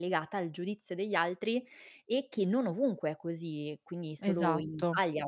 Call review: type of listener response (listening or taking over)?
listening